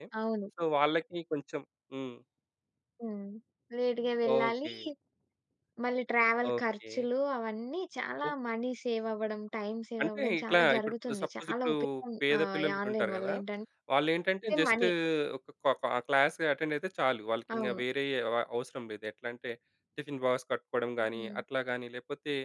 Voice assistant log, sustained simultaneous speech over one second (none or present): present